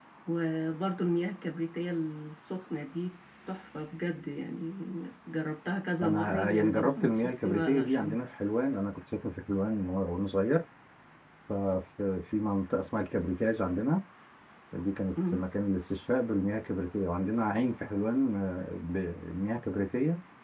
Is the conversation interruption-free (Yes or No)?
No